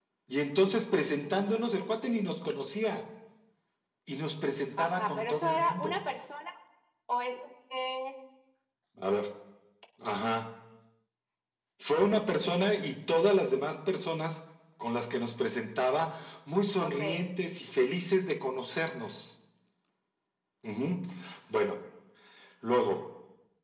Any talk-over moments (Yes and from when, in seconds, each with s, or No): Yes, from 4.8 s